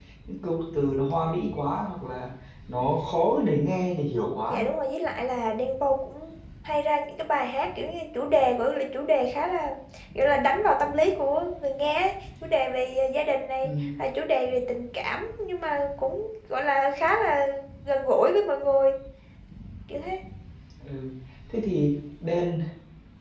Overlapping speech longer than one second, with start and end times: none

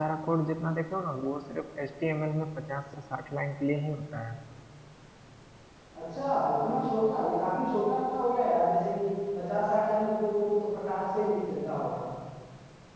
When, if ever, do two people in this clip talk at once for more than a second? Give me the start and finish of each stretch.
none

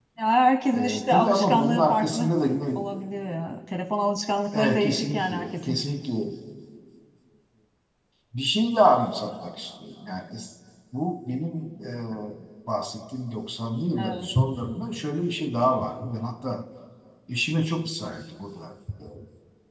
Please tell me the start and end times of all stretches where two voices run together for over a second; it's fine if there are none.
0.7-2.3, 4.5-5.8

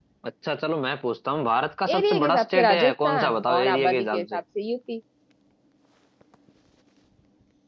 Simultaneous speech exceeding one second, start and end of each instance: 1.9-4.4

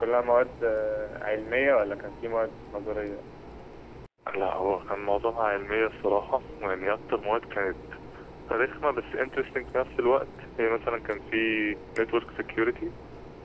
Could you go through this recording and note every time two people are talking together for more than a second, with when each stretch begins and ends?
none

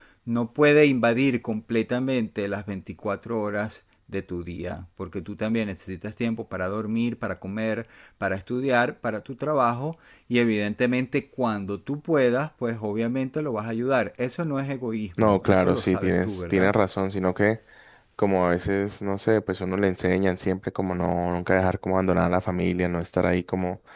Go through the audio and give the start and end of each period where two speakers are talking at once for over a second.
15.2-16.7

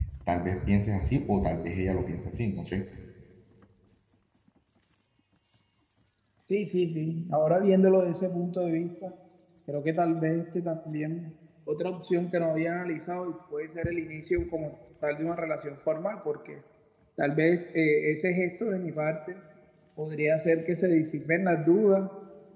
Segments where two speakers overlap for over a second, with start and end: none

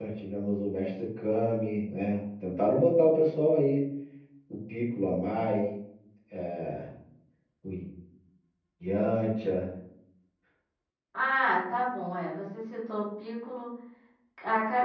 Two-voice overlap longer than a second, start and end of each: none

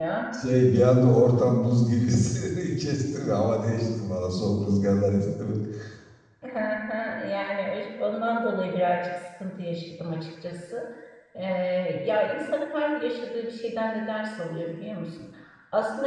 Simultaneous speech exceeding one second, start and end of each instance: none

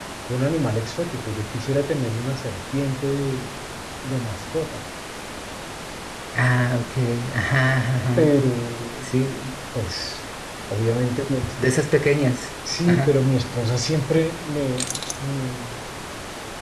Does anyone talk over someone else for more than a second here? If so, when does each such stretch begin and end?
none

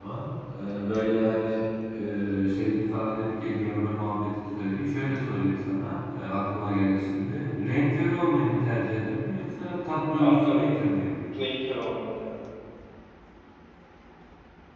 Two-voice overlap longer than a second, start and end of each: none

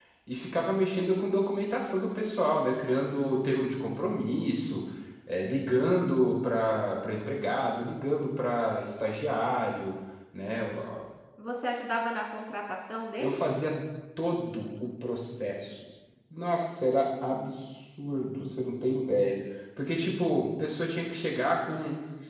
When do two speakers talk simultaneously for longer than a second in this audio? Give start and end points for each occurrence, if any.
none

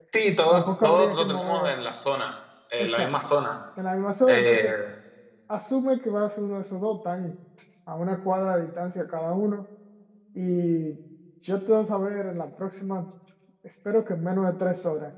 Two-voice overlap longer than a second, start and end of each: 0.5-1.7

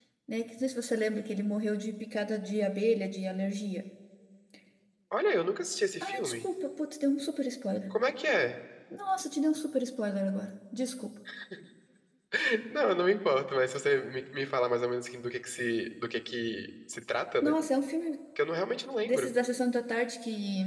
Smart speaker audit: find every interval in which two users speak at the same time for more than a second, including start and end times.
none

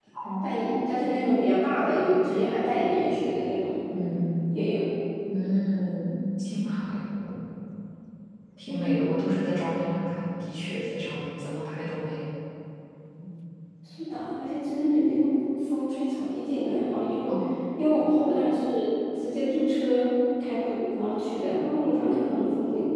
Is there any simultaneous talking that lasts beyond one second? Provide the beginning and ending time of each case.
none

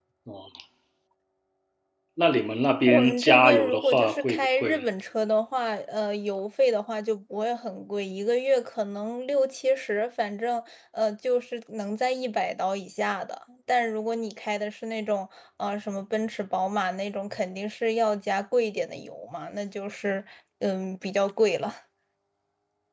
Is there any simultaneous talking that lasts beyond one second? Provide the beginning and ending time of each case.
2.9-4.8

